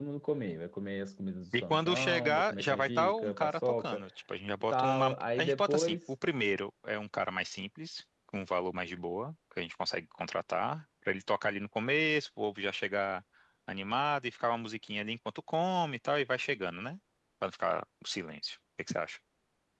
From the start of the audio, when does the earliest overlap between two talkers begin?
2 s

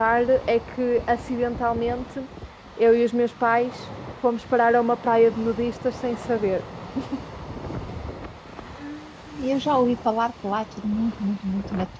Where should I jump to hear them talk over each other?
none

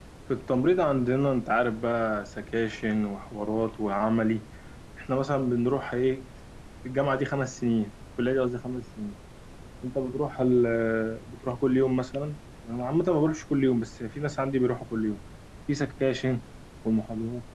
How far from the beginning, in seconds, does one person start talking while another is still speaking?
none

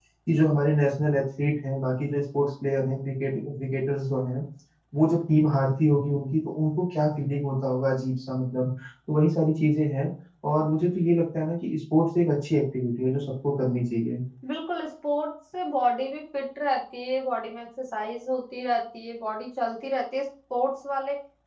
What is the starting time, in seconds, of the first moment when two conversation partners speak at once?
none

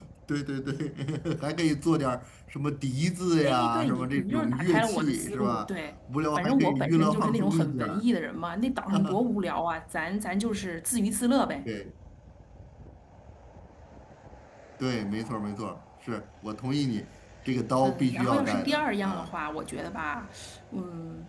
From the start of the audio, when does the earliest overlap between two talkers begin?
3 s

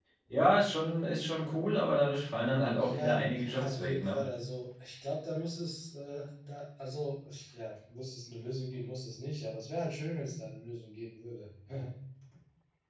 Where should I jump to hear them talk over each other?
3 s

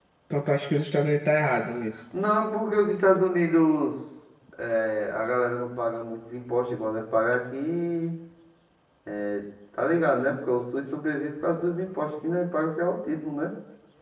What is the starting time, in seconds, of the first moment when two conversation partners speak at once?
none

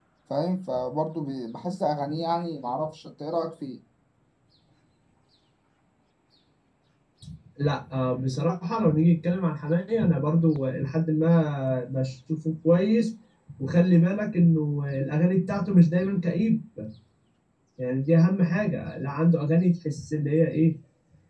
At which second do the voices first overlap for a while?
none

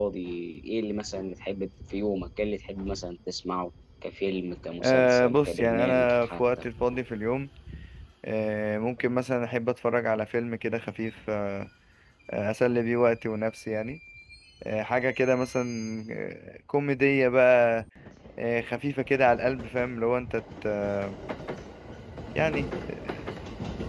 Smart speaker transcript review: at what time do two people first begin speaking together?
5 s

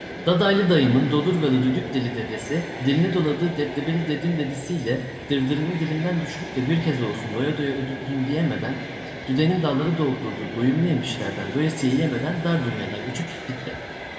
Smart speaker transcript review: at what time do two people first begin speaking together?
none

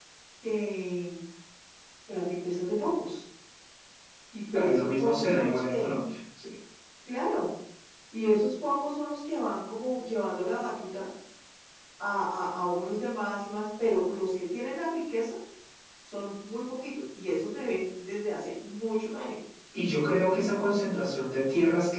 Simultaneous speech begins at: 5 s

